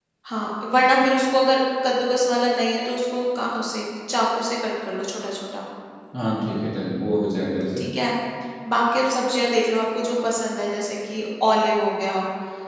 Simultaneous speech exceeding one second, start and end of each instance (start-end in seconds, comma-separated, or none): none